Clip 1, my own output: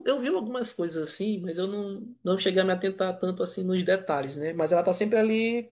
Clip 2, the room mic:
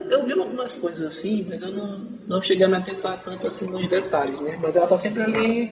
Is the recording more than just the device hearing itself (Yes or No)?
No